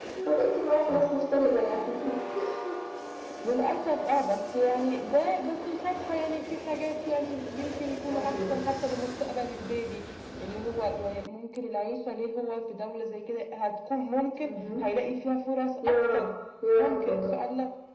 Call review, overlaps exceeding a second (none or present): none